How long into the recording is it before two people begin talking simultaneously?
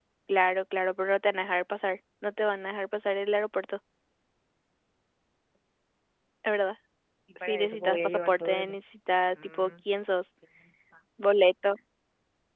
7.5 s

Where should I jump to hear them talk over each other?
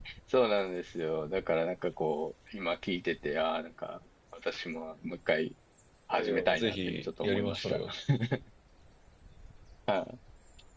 6.1 s

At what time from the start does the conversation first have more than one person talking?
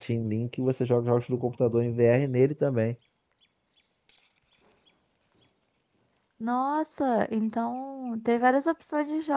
none

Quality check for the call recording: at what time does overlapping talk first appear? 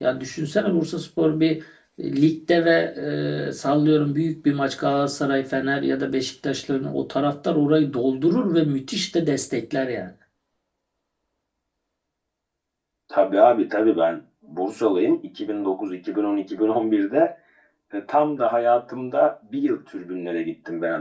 none

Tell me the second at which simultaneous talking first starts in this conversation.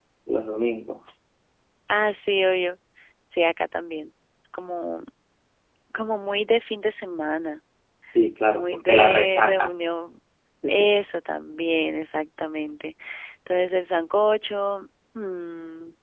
8.5 s

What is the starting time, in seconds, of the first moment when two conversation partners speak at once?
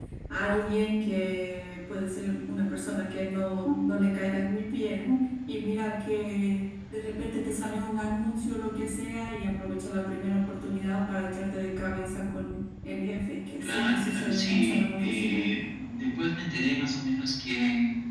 13.6 s

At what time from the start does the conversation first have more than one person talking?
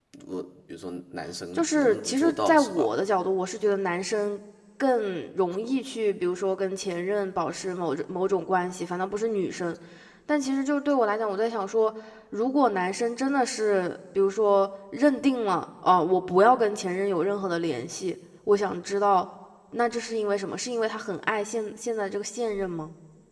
1.6 s

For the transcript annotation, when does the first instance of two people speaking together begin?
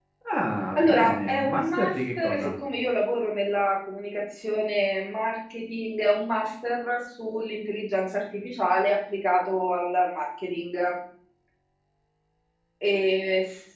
0.8 s

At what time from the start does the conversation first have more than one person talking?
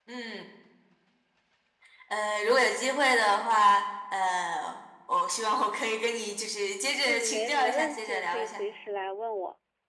7.0 s

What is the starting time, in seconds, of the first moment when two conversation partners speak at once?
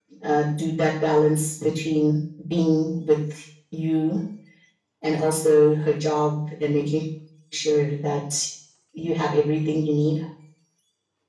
none

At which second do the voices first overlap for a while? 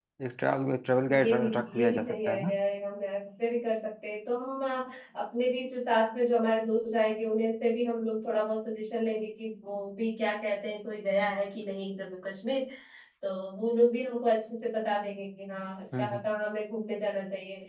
1.2 s

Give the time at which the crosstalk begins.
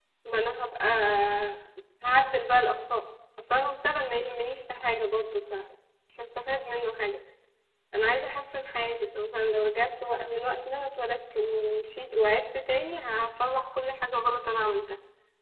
none

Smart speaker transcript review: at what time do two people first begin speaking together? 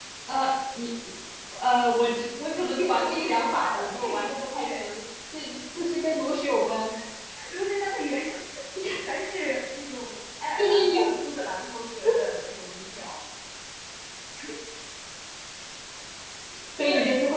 2.8 s

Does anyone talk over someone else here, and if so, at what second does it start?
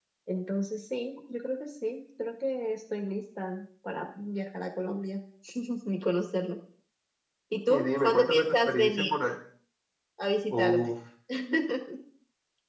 7.7 s

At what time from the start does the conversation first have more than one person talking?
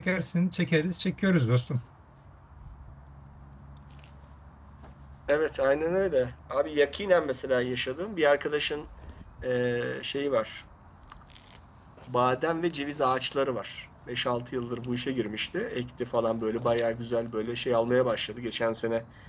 none

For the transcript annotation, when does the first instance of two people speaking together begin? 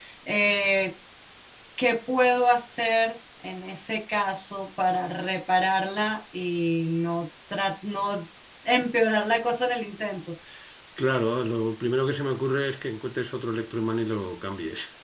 none

